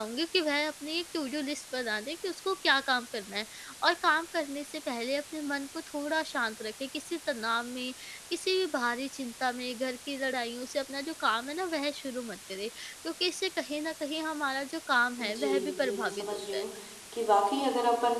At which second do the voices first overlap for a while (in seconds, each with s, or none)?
15.2 s